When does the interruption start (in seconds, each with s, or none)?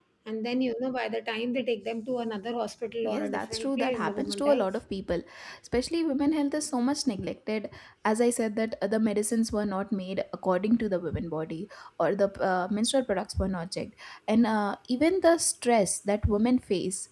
3.0 s